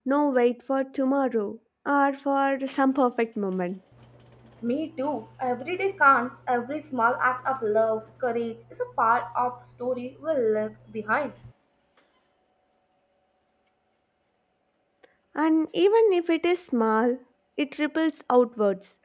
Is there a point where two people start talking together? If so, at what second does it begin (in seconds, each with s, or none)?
none